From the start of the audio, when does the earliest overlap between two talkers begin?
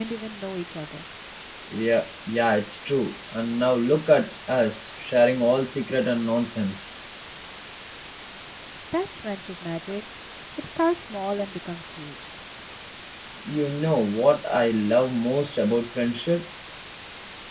none

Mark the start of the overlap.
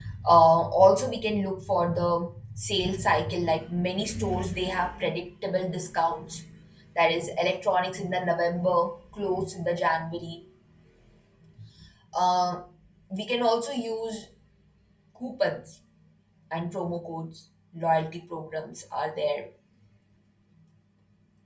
none

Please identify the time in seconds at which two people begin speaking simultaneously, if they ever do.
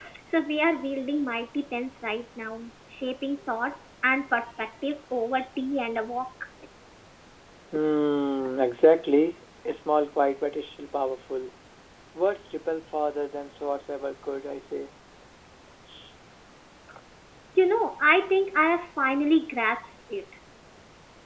none

